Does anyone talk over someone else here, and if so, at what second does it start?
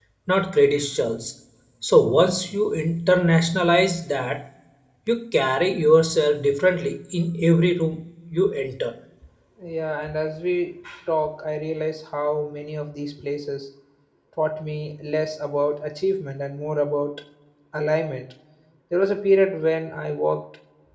none

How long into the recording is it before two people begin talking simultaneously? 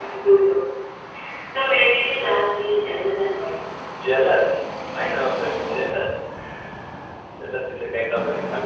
none

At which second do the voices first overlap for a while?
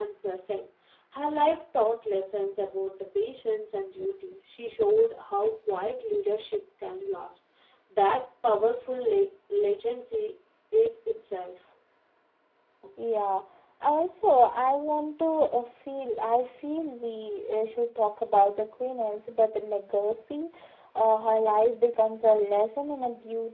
none

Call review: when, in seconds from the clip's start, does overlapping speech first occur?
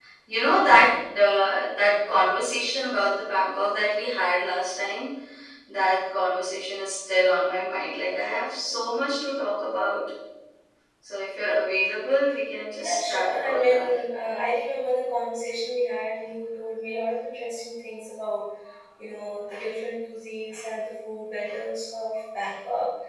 13 s

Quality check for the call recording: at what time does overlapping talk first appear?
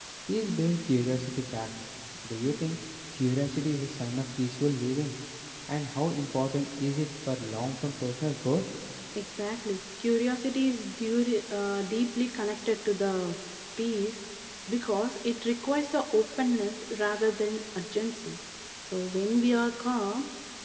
none

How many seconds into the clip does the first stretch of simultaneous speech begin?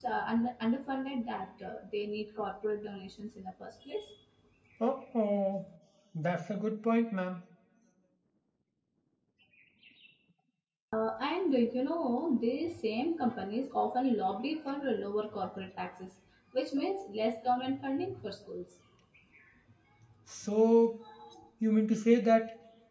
none

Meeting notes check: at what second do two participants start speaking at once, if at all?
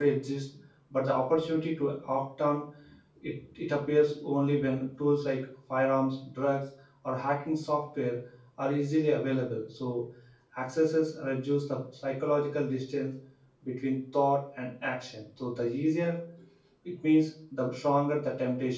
none

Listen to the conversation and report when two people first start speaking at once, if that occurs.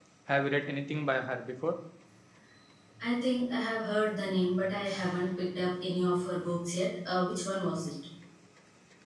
none

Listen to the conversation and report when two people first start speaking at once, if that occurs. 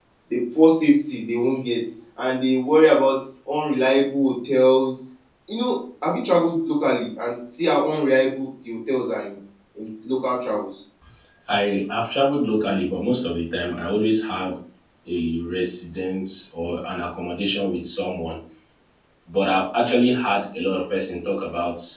none

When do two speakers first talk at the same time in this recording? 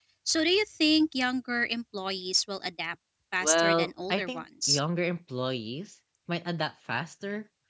3 s

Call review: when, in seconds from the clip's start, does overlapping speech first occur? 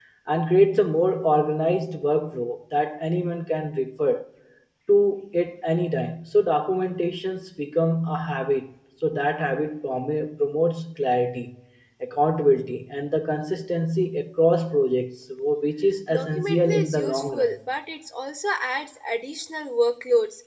16 s

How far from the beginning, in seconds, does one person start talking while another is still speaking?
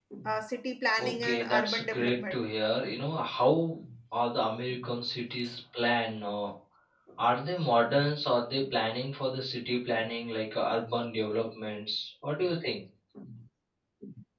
1 s

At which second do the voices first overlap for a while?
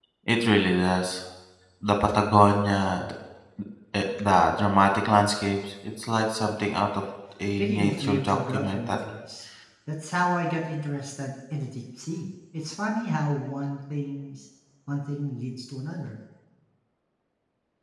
8 s

